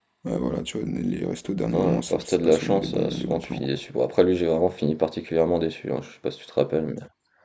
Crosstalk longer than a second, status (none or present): present